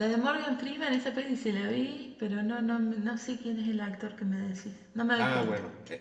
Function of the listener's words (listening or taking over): taking over